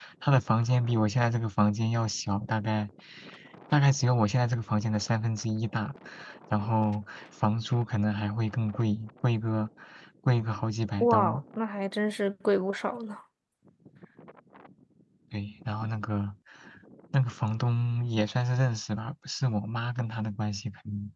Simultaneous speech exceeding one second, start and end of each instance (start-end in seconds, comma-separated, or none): none